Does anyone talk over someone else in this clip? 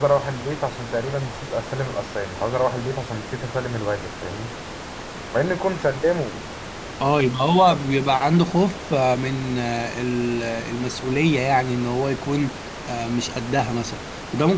No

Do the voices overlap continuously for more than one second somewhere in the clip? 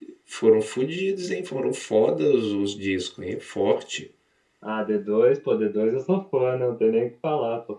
No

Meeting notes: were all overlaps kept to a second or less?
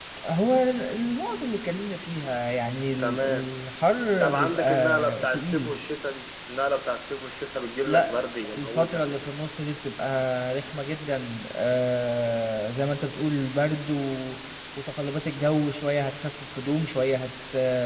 No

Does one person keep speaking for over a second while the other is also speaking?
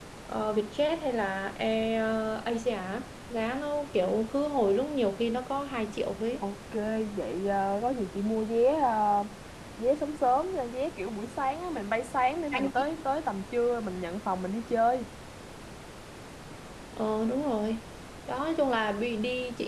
No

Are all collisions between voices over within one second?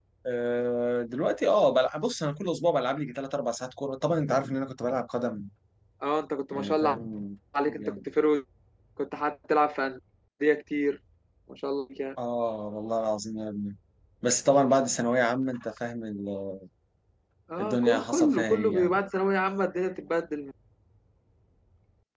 No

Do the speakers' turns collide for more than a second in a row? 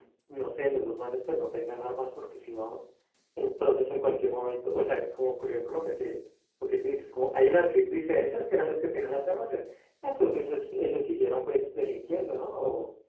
No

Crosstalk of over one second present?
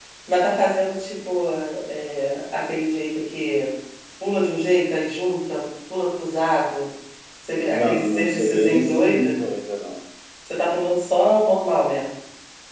Yes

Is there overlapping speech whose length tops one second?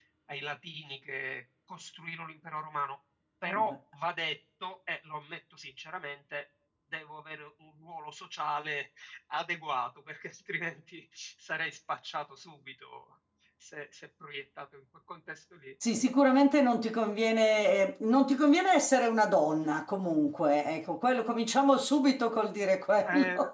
No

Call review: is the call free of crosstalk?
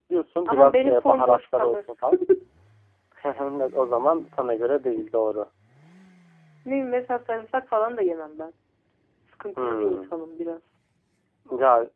No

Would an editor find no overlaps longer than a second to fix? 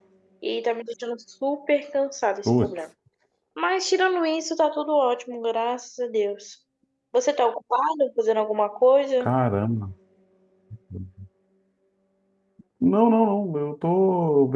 Yes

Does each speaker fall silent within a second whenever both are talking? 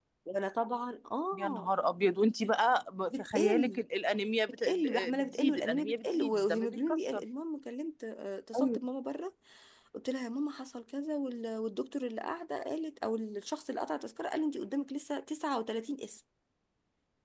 No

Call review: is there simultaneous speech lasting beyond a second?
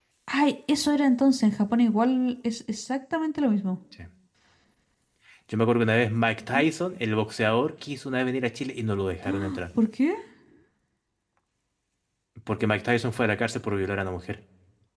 No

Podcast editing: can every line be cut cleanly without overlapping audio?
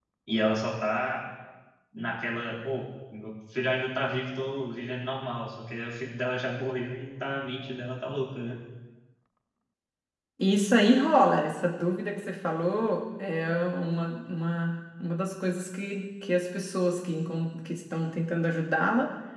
Yes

